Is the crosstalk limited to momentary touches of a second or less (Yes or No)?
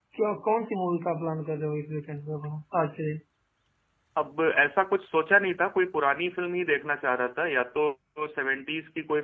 Yes